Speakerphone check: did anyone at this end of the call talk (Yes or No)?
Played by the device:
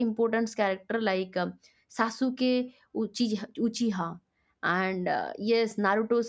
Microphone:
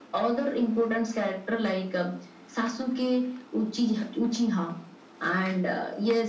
No